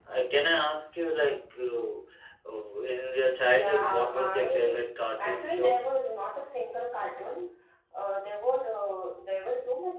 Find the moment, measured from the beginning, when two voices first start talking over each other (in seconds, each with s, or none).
3.3 s